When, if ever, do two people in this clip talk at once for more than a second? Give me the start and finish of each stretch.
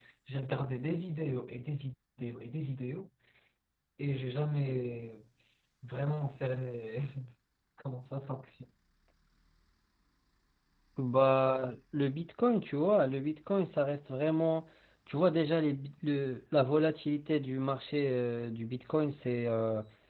none

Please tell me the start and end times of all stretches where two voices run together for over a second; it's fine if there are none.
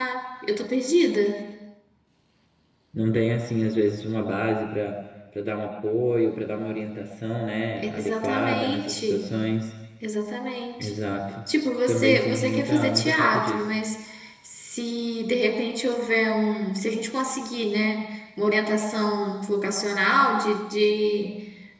7.8-9.3, 11.9-13.6

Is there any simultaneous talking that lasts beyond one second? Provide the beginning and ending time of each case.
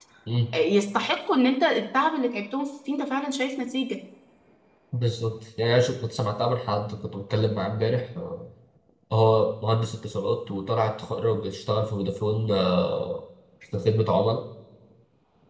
none

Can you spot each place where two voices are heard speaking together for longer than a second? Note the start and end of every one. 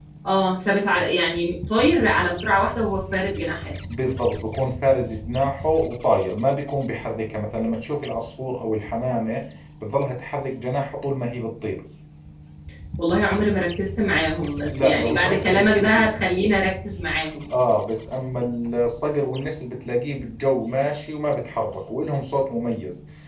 14.7-16.1

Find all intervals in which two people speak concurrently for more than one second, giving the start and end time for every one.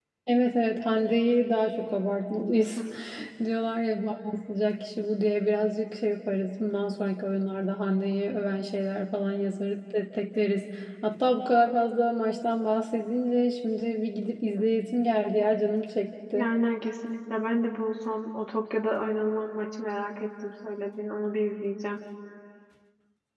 none

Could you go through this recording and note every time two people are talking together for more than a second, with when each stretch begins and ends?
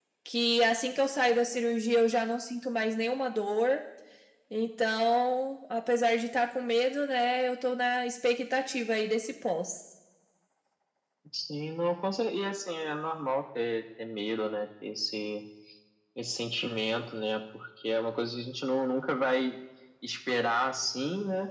none

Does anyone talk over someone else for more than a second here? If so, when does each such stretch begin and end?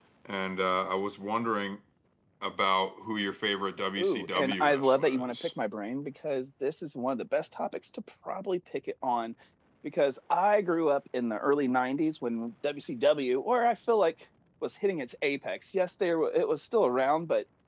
4.0-5.5

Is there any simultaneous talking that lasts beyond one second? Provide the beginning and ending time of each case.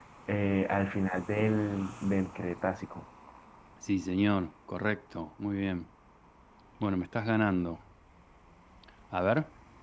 none

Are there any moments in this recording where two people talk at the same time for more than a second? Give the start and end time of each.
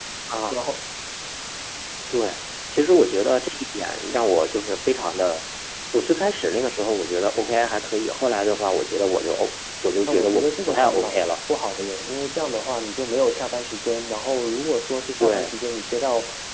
10.1-11.3

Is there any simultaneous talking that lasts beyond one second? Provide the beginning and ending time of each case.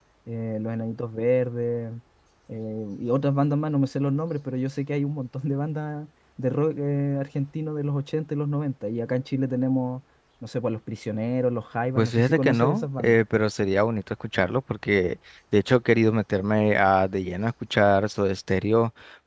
12.0-13.2

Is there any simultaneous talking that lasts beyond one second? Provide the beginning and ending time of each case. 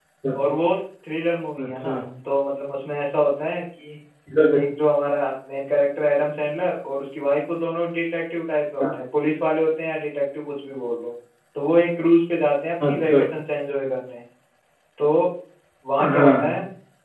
none

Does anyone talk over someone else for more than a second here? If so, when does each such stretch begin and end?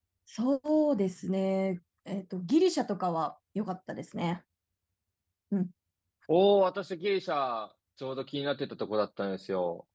none

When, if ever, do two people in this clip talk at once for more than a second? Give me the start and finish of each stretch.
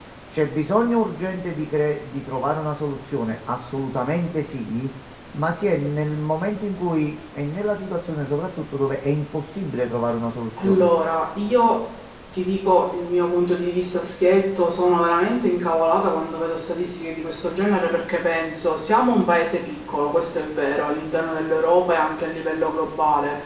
none

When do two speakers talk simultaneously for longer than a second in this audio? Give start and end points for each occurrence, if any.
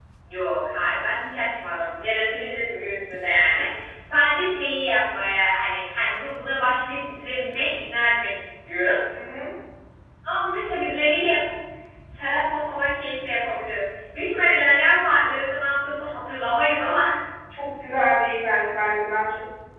none

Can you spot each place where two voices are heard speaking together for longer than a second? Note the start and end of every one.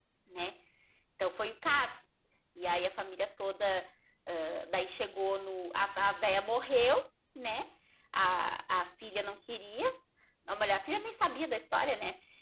none

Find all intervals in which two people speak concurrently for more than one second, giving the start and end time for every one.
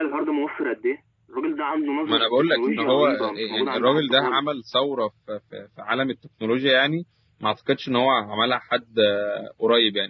2.1-4.4

